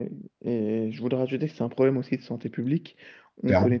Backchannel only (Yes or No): Yes